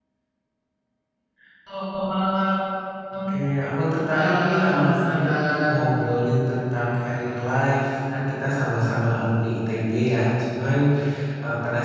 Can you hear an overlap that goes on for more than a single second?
Yes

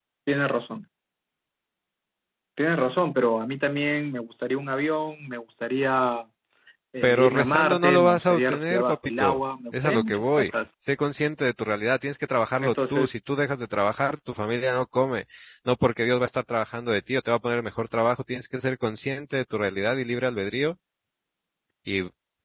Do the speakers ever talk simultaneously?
Yes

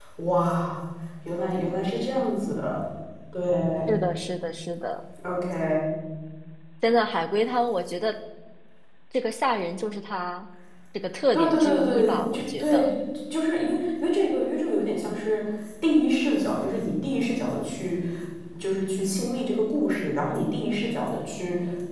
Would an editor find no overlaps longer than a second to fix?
No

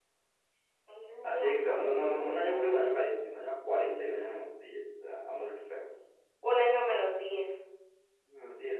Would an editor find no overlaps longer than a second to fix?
No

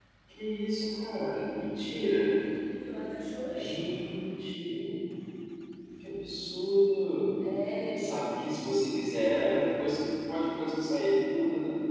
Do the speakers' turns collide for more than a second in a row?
No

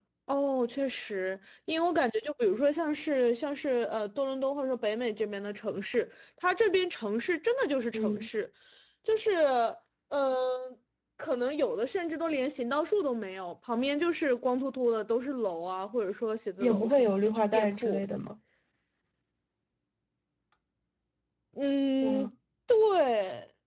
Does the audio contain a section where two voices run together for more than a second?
Yes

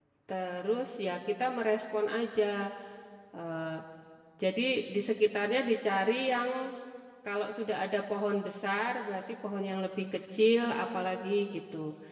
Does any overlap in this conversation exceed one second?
No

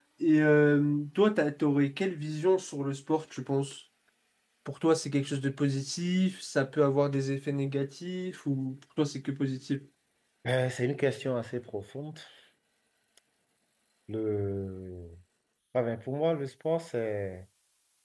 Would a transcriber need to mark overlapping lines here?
No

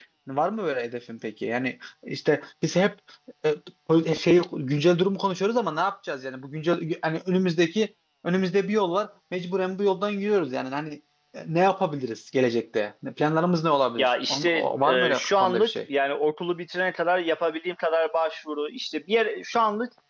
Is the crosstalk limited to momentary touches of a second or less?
No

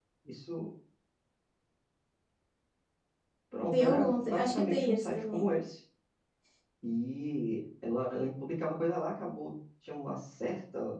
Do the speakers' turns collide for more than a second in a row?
Yes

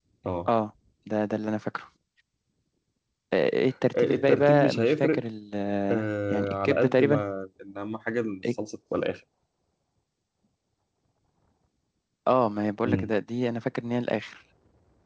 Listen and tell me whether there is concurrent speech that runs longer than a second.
Yes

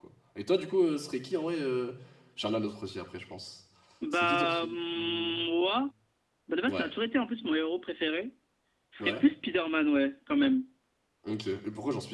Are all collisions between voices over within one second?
No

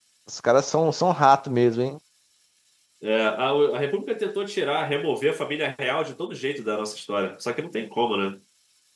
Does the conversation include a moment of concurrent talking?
No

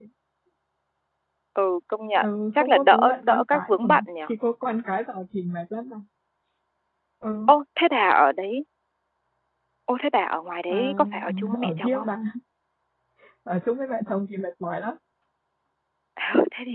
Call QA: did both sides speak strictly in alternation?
No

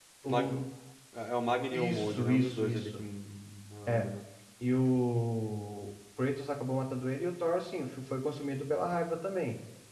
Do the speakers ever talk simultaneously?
Yes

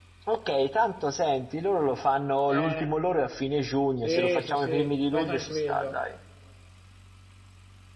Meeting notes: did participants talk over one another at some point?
Yes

